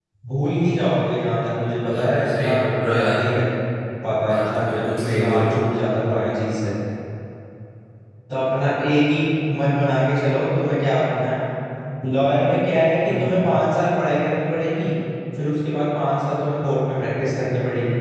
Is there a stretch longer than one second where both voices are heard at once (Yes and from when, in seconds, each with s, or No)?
Yes, from 1.8 s